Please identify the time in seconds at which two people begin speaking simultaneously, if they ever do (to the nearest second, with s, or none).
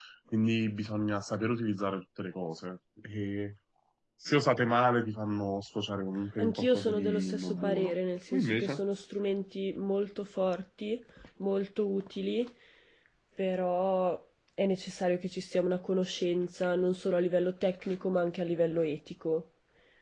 6 s